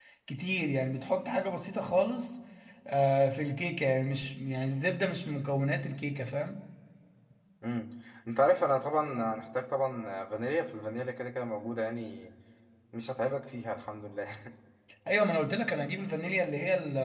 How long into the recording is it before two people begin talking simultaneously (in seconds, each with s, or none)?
none